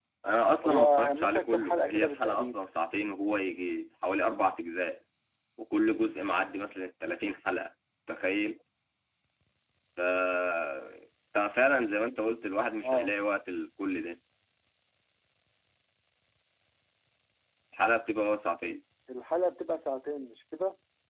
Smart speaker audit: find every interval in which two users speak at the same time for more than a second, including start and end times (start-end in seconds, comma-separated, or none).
0.6-2.5